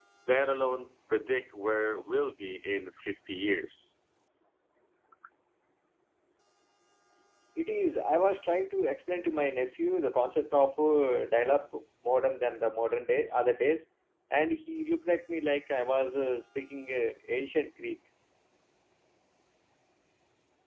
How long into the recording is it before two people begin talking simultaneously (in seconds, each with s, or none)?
none